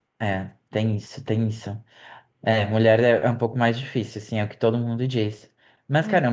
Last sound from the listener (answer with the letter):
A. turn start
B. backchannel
B